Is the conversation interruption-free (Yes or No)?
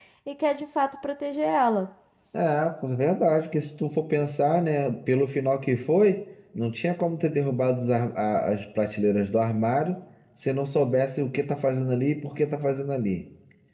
Yes